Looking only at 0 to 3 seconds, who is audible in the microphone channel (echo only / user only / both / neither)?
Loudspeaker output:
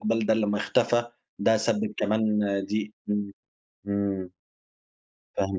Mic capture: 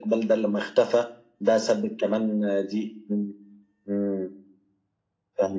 echo only